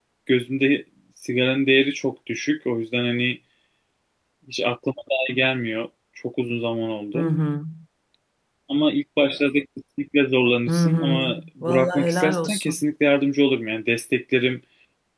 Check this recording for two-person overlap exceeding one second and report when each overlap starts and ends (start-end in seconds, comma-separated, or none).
10.7-12.8